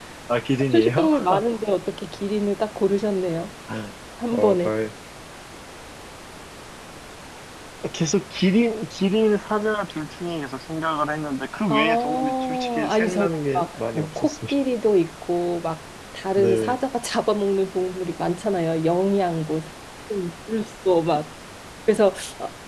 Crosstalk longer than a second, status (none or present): present